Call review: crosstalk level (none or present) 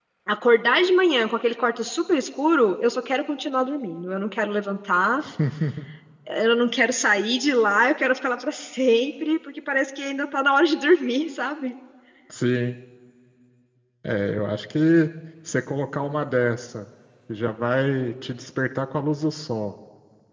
none